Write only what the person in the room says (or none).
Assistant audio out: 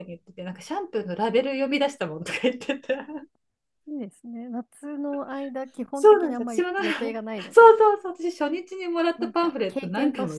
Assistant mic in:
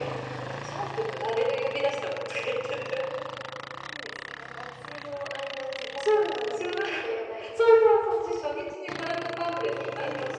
none